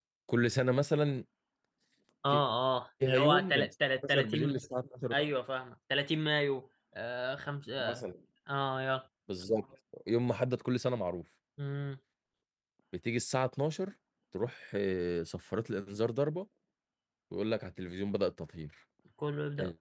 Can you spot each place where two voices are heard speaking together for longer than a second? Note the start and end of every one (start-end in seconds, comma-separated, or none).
3.0-4.6